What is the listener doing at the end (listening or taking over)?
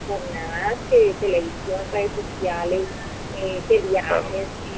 listening